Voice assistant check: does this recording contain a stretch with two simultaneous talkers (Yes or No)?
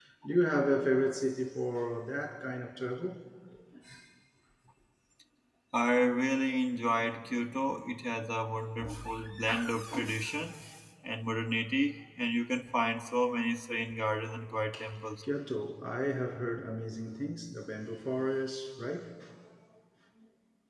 No